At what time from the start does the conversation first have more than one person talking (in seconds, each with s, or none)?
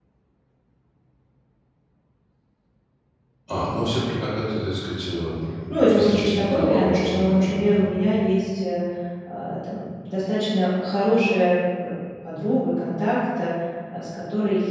5.7 s